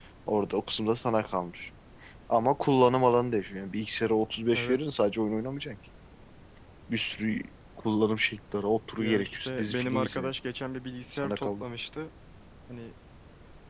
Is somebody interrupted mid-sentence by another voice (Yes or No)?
Yes